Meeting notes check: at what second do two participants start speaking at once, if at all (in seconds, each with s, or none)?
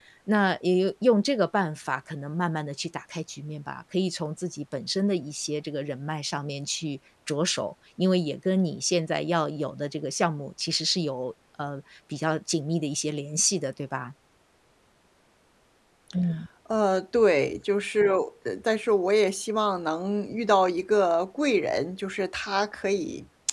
none